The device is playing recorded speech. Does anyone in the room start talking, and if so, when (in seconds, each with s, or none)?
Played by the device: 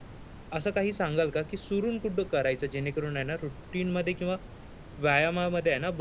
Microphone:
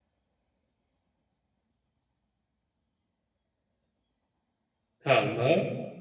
5.0 s